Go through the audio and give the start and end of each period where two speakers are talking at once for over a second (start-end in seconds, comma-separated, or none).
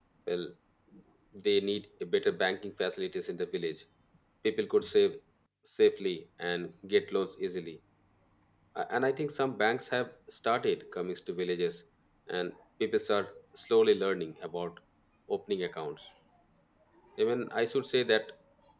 none